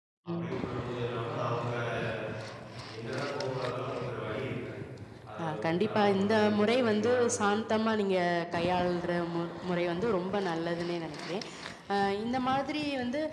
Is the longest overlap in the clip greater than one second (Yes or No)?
Yes